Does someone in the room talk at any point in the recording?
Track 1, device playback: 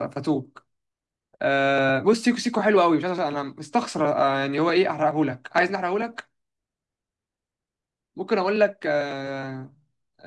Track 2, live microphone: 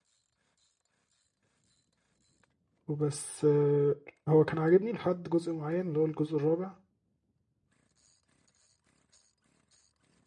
Yes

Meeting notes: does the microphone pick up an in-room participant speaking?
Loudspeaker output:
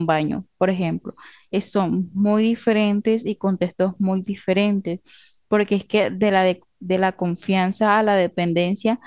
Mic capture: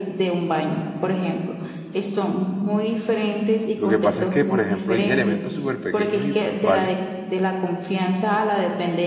Yes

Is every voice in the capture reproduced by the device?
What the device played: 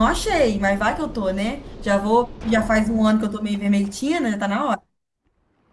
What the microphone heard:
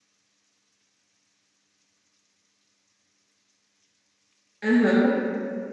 No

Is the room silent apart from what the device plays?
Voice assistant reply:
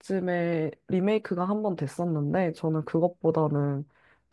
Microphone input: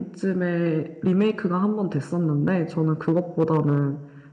Yes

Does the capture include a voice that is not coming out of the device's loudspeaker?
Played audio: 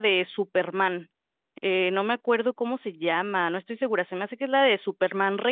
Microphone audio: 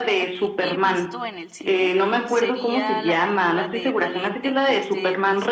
Yes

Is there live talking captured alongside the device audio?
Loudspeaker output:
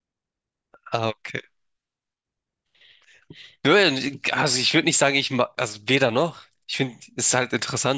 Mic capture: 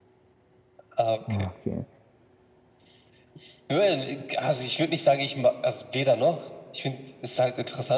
Yes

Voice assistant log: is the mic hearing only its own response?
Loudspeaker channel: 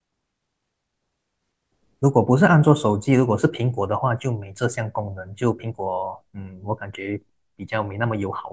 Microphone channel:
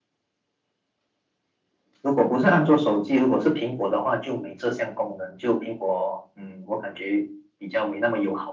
Yes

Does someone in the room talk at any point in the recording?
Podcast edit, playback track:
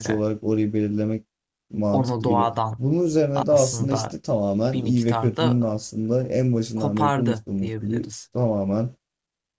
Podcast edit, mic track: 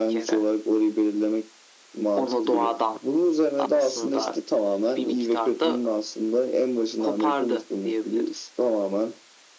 No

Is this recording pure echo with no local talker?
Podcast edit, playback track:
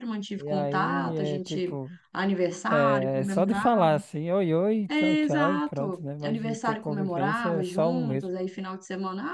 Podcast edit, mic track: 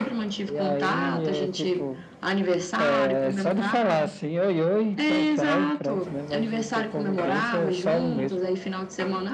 Yes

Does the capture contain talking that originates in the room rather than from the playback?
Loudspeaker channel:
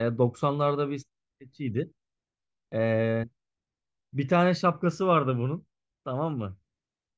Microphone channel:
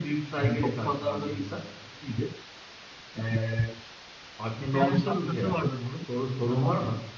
Yes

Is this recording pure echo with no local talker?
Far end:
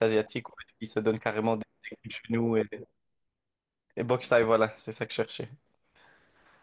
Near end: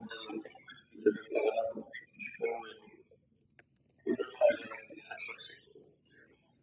Yes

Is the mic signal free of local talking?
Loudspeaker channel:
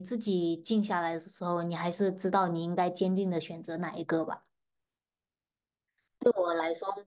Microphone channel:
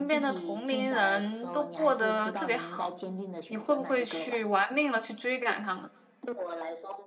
No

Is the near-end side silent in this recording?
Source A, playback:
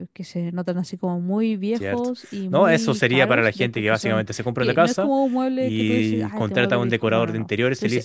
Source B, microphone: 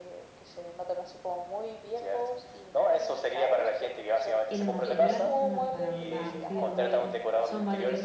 No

